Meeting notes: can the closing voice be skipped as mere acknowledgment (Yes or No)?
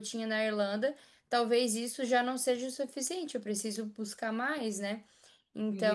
No